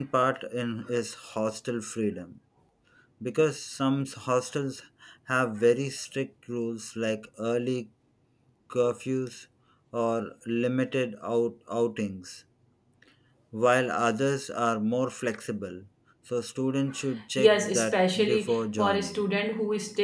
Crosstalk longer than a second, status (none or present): present